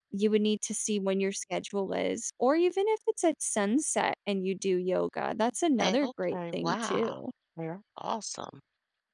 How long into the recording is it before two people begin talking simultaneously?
5.8 s

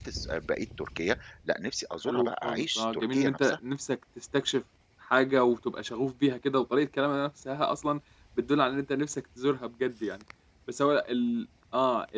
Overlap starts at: 2.0 s

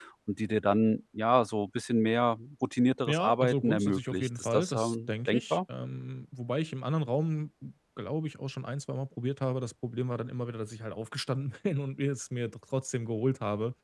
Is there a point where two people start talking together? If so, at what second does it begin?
3.1 s

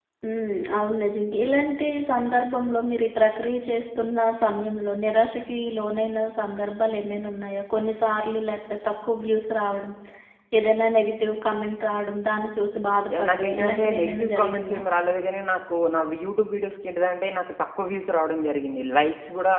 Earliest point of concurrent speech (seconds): 13.1 s

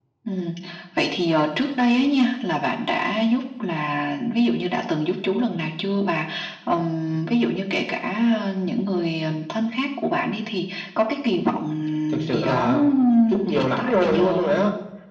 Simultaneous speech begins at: 12.3 s

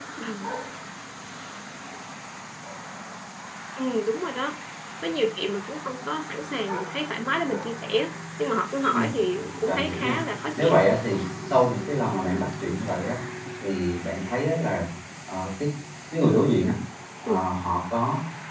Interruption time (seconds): 8.9 s

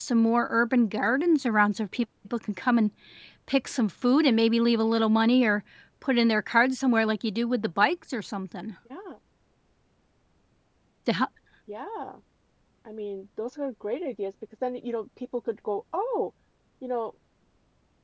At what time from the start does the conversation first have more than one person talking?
none

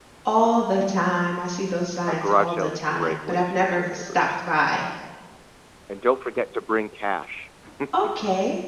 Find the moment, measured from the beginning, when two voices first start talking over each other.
2.0 s

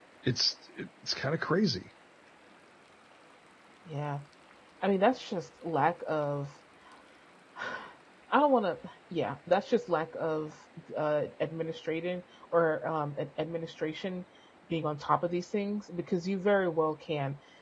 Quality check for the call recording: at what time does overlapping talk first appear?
none

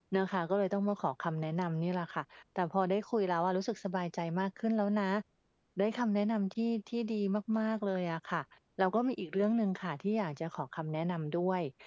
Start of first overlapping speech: none

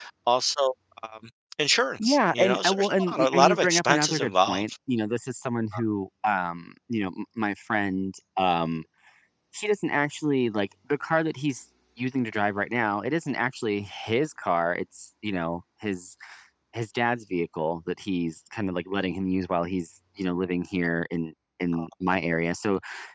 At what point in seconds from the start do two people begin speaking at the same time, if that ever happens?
2.0 s

